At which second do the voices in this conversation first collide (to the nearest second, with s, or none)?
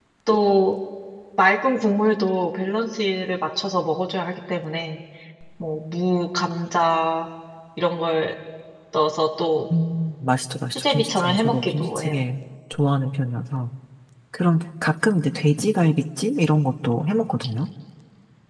11 s